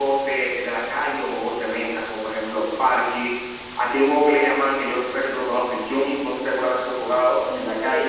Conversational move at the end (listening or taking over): taking over